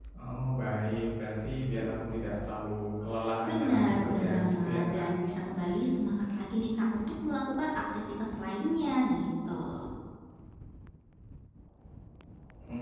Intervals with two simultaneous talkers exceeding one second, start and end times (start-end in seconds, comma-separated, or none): 3.5-5.1